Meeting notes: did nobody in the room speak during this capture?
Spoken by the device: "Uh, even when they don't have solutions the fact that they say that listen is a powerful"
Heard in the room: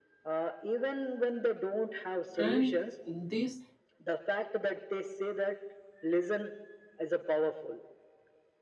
No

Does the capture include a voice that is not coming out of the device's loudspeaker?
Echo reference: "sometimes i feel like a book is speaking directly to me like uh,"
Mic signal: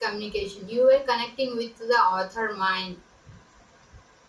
Yes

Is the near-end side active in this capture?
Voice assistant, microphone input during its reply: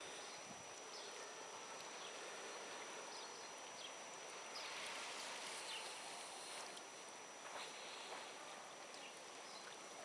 No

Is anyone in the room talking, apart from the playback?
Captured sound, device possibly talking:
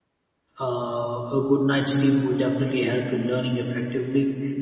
Yes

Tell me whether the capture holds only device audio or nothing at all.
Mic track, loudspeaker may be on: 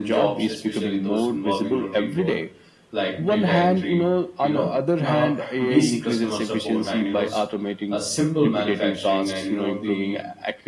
No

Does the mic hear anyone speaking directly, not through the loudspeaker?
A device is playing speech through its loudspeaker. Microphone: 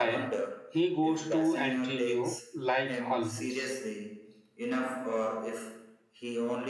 Yes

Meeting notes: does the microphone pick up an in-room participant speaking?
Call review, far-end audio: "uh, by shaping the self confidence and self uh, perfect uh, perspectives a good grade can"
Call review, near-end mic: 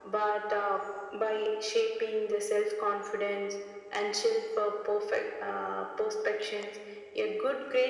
No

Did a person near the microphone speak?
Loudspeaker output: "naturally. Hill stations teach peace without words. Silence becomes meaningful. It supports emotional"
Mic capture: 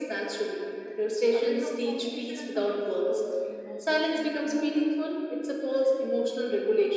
Yes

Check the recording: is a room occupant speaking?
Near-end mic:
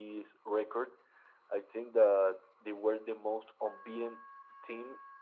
No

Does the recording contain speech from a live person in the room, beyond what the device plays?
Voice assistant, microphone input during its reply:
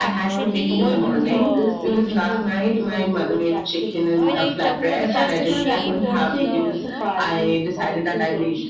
Yes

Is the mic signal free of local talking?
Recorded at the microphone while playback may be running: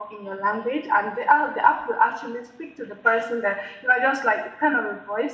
Yes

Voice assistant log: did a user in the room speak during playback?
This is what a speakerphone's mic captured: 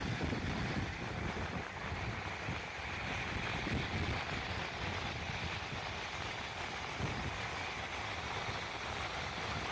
No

